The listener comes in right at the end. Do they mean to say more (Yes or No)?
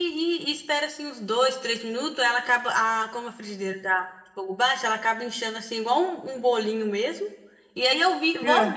No